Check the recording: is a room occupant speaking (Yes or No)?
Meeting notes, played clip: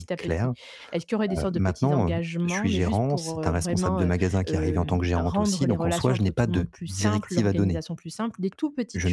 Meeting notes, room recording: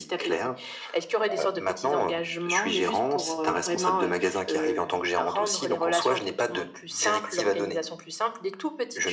No